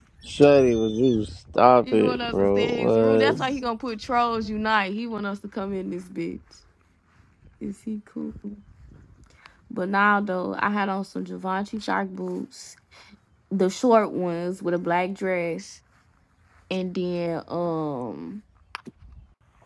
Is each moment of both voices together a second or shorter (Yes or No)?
No